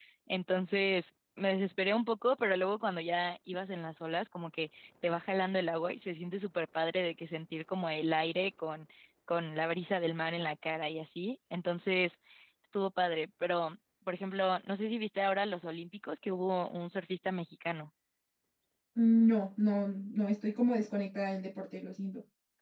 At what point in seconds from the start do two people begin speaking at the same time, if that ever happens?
none

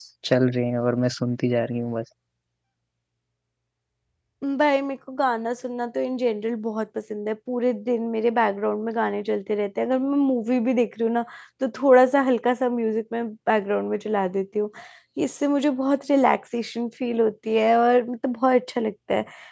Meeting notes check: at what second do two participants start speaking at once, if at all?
none

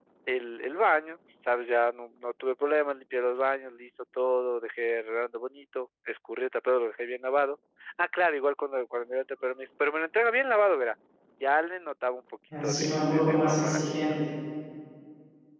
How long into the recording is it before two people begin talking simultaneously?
13 s

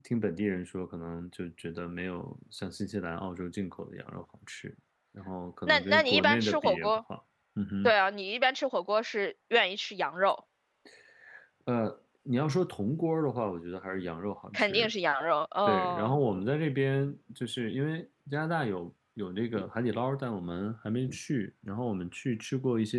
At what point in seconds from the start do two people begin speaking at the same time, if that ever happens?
6 s

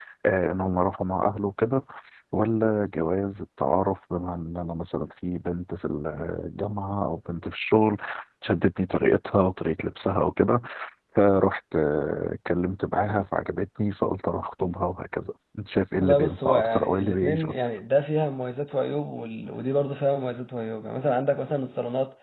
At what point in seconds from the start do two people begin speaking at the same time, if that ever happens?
16 s

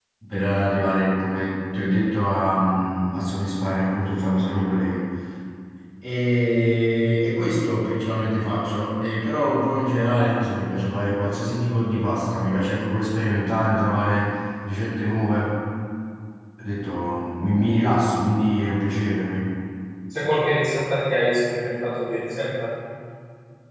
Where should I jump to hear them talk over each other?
none

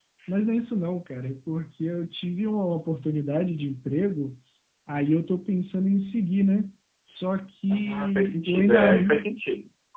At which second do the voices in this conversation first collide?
8 s

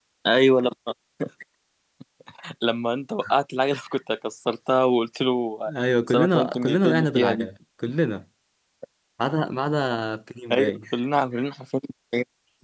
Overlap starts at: 6 s

